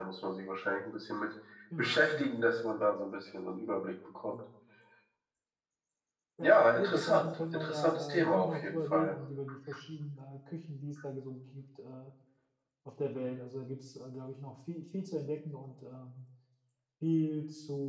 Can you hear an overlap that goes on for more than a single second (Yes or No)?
Yes